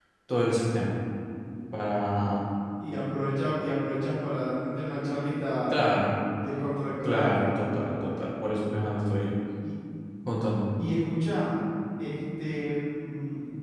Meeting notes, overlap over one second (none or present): none